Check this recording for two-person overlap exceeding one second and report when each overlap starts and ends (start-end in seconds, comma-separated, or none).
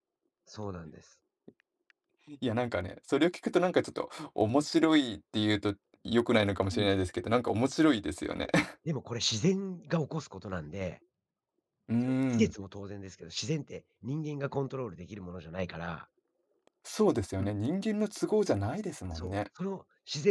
none